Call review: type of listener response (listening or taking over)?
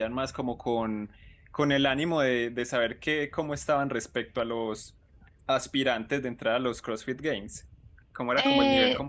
taking over